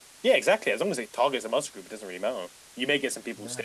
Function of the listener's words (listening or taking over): listening